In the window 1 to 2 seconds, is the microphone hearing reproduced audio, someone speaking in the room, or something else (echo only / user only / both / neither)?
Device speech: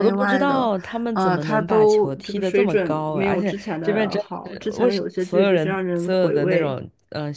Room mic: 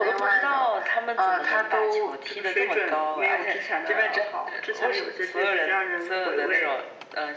echo only